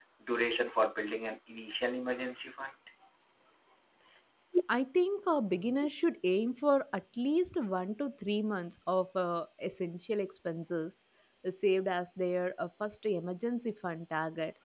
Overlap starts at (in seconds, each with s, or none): none